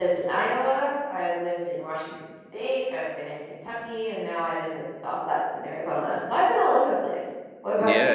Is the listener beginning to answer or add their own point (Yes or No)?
Yes